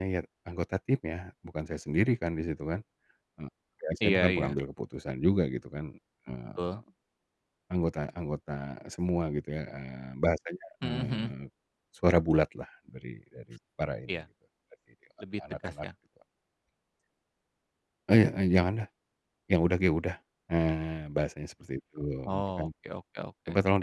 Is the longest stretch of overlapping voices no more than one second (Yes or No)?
Yes